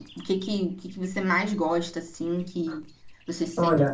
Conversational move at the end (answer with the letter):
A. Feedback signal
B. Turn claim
B